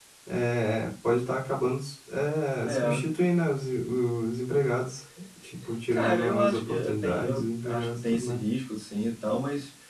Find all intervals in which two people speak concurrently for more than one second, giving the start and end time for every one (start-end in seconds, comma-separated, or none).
5.9-8.4